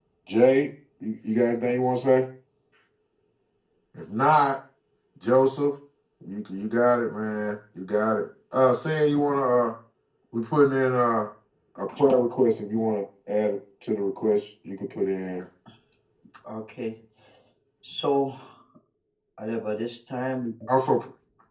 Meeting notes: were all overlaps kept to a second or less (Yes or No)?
Yes